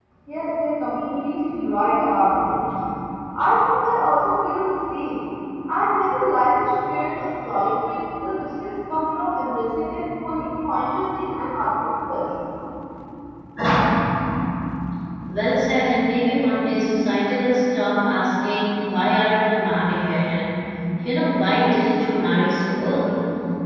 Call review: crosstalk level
none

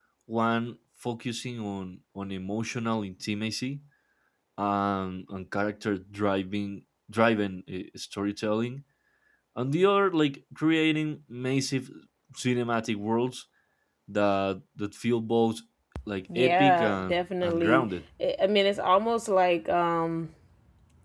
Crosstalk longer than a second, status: present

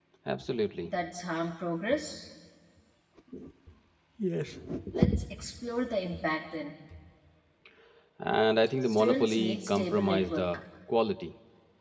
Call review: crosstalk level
present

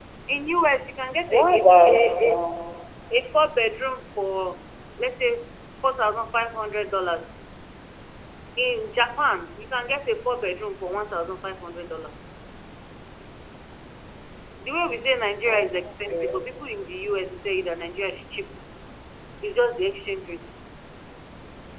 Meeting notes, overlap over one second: present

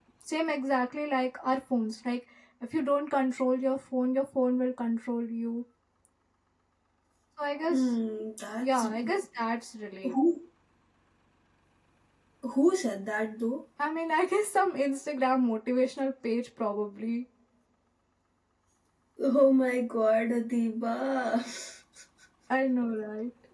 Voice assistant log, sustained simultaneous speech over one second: none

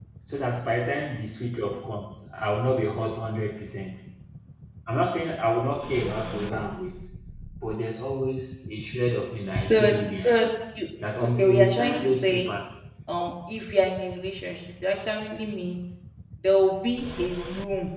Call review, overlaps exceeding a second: present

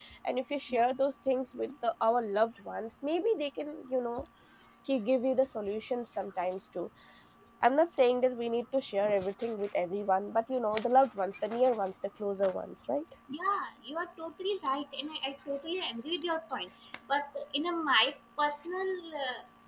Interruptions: none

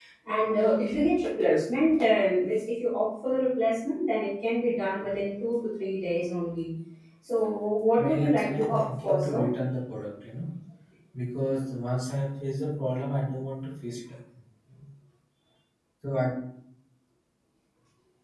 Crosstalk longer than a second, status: present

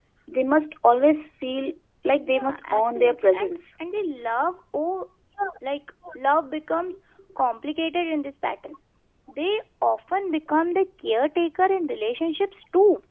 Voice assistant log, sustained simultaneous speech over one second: present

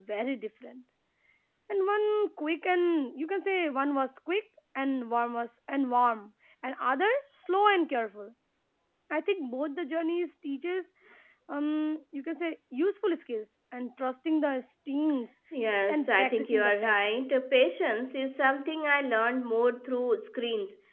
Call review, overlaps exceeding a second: present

